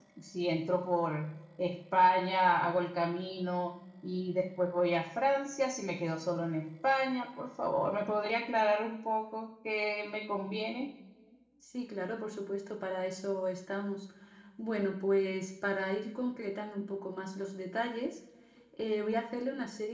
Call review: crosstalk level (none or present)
none